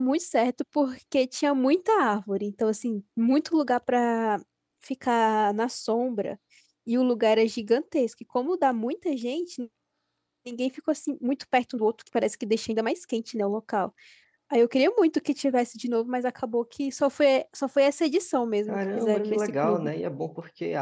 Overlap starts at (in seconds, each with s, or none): 18.7 s